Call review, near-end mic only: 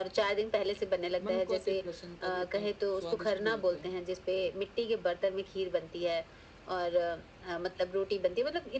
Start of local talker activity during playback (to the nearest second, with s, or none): 1 s